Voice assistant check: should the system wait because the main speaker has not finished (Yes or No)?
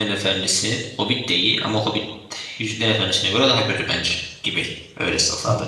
No